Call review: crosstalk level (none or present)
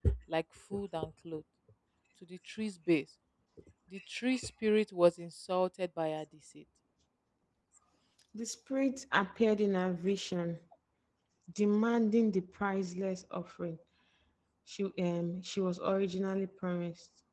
none